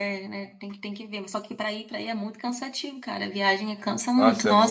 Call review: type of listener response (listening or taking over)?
taking over